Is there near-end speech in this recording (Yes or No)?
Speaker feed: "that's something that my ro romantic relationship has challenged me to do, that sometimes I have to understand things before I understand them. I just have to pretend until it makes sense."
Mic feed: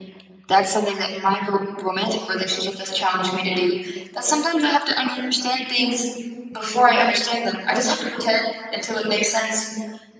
No